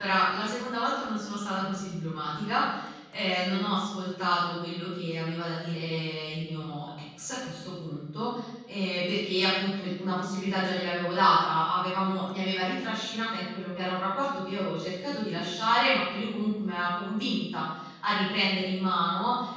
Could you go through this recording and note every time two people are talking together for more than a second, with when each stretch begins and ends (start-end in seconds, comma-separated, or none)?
none